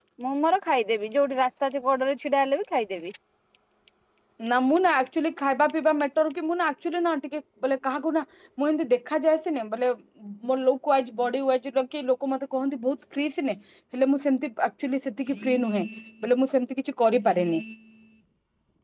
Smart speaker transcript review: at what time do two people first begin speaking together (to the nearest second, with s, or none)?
none